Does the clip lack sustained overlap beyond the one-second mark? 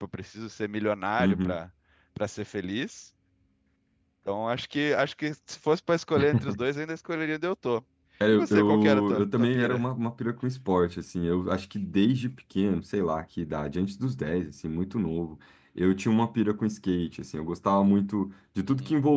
No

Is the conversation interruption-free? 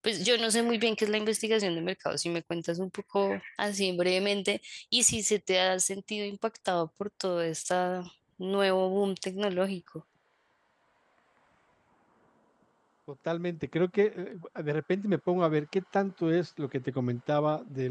Yes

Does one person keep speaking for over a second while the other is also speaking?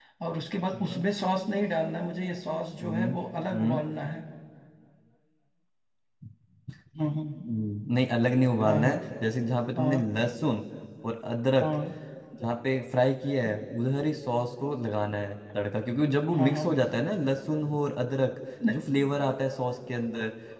No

